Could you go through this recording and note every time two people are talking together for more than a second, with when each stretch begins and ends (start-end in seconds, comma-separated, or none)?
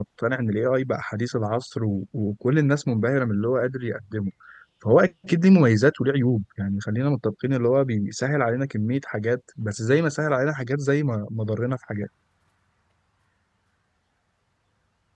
none